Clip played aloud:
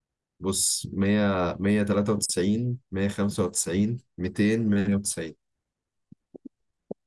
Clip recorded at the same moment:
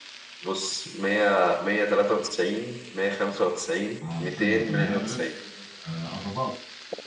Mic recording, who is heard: both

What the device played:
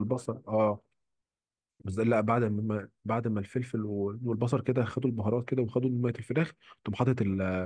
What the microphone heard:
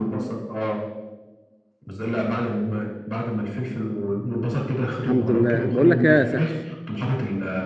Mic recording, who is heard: both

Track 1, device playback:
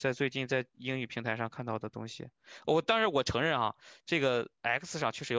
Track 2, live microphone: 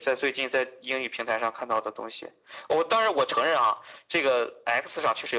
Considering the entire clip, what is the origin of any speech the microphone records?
echo only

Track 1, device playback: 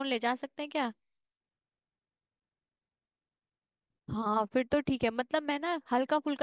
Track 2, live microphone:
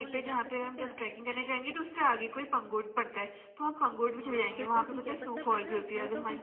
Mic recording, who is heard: both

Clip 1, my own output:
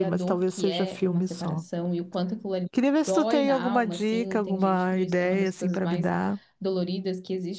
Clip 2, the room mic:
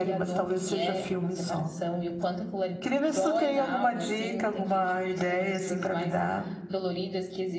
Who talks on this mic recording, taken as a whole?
echo only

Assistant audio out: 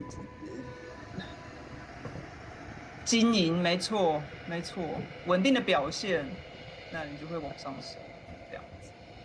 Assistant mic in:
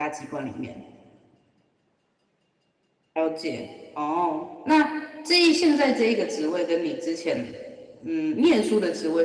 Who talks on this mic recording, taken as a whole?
user only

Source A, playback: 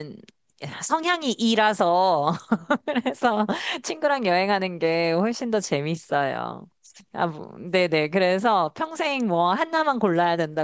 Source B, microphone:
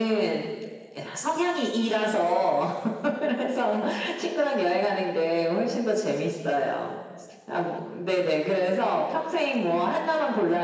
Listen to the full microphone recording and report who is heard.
echo only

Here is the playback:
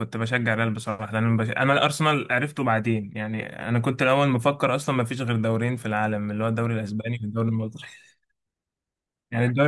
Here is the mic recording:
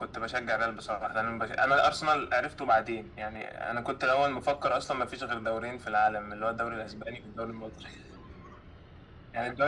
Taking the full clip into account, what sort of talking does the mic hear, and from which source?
echo only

